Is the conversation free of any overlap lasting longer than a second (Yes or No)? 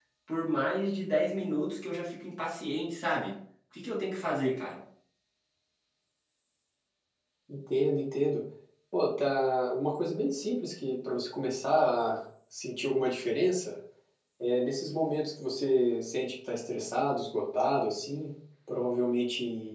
Yes